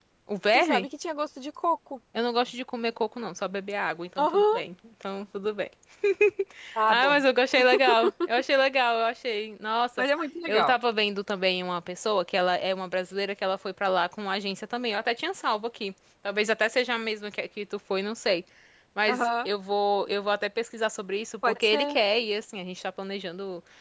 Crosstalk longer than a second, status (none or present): none